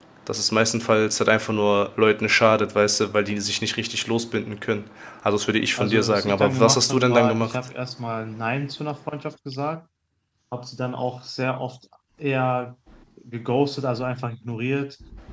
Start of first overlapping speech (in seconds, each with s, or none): 5.8 s